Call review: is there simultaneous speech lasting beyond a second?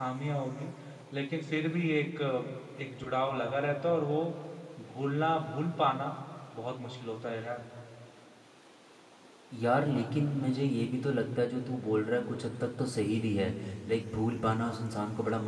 No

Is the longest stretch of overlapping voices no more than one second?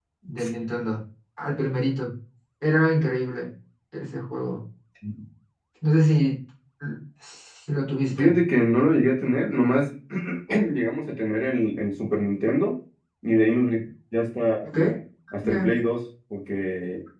Yes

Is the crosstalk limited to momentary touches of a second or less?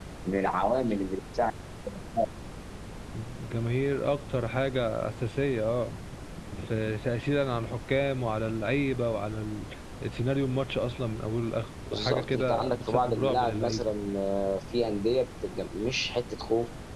No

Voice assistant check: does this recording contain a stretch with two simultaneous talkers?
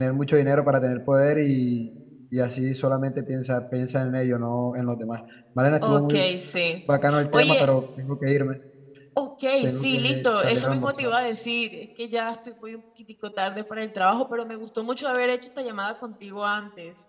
Yes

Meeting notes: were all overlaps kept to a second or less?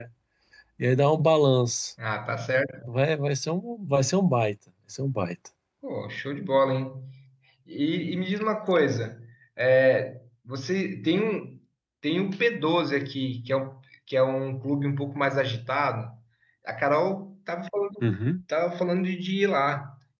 Yes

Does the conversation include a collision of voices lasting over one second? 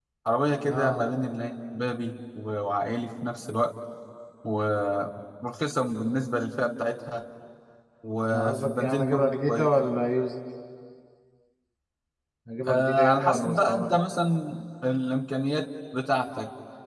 Yes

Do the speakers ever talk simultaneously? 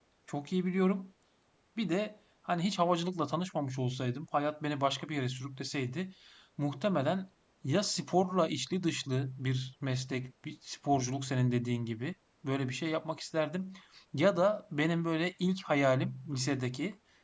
No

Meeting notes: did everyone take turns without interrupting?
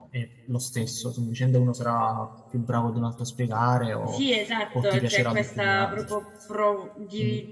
No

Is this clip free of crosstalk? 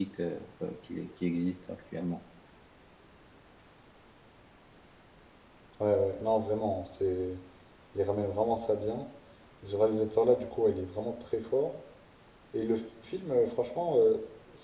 Yes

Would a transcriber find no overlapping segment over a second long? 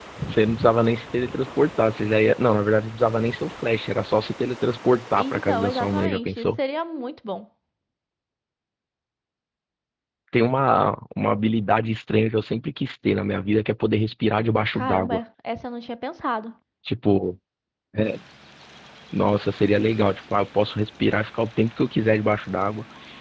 No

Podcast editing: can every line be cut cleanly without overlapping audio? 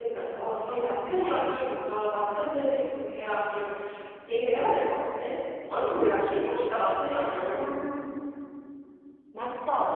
No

